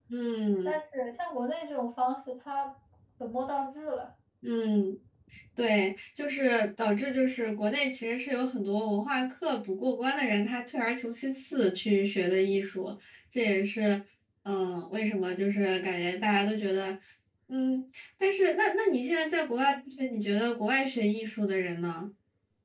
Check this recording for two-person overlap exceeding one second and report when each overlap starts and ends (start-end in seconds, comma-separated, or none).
none